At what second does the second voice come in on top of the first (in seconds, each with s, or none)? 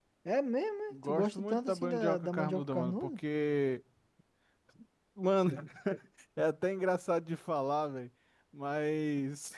0.9 s